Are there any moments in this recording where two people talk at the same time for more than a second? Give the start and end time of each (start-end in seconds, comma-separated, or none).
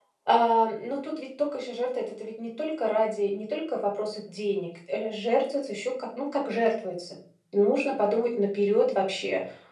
none